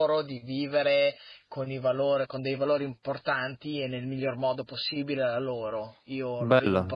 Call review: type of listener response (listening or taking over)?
taking over